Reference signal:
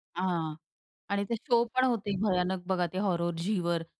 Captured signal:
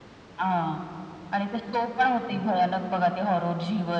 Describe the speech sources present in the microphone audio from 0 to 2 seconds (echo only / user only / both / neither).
echo only